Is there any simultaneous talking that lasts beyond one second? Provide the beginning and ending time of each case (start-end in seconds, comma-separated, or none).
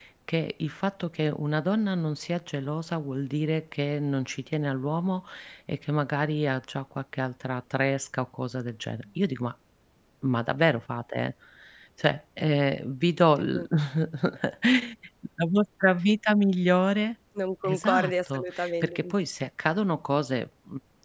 17.6-19.0